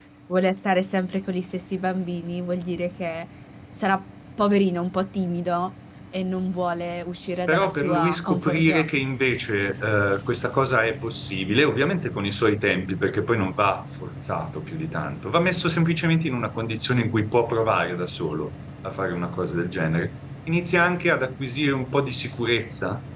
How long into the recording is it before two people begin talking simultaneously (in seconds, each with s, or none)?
7.5 s